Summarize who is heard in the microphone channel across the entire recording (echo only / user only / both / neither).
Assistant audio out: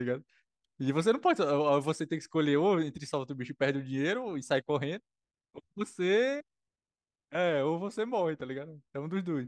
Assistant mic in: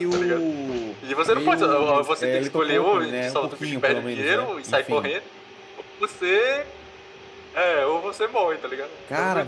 both